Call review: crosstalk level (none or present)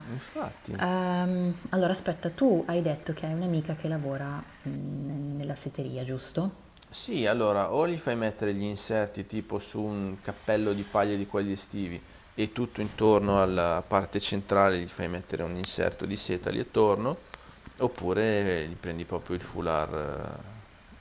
none